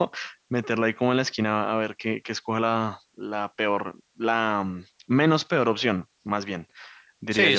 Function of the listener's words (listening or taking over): taking over